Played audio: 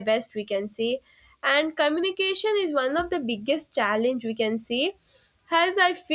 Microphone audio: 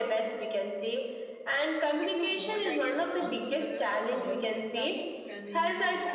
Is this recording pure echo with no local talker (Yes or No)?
No